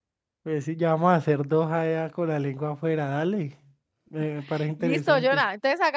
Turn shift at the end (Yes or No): Yes